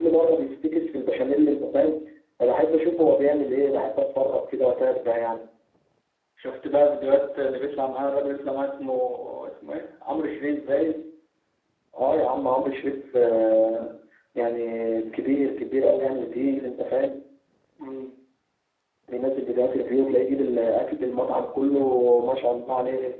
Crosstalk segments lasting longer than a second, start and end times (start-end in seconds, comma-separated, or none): none